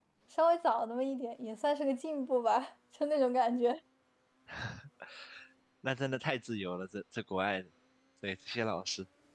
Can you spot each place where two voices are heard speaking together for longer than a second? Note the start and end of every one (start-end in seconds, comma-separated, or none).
none